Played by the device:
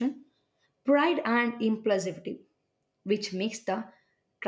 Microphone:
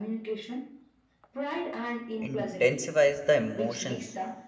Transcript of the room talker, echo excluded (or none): intensifies the emotional